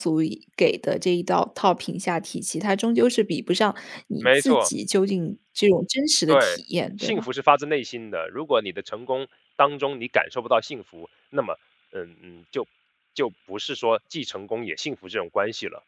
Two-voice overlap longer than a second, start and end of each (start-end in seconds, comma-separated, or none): none